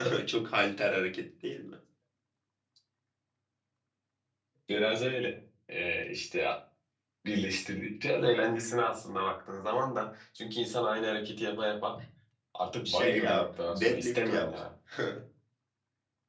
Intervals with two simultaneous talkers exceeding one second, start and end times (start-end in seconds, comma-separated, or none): 12.8-14.5